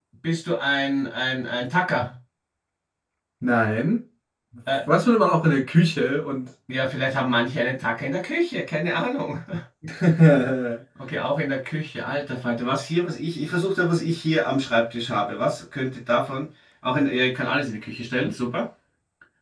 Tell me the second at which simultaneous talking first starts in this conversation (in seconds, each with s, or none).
none